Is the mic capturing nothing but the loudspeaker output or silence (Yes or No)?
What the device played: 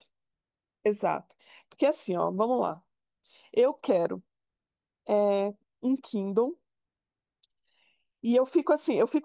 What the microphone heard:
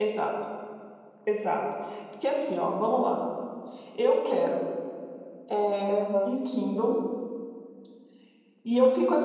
No